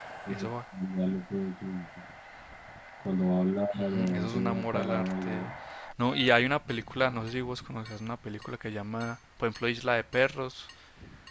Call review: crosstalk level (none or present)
present